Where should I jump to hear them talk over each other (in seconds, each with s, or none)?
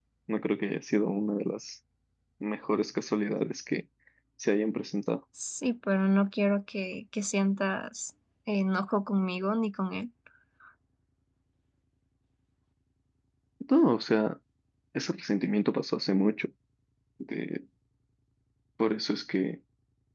none